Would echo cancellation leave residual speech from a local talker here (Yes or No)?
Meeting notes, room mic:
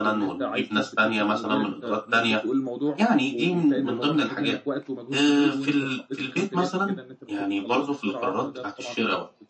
Yes